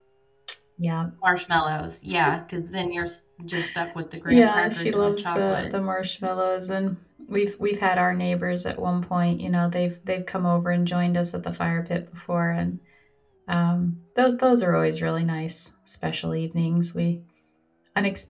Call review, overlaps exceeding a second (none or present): present